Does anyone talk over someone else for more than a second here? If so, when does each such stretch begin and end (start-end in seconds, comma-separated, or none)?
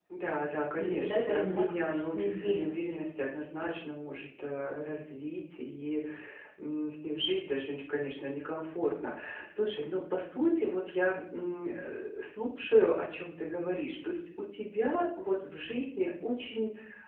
0.8-3.0